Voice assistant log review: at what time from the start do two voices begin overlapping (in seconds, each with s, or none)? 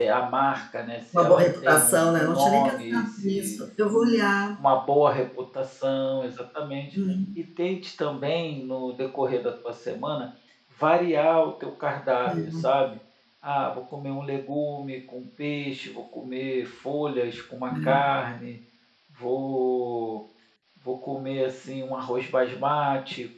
1.2 s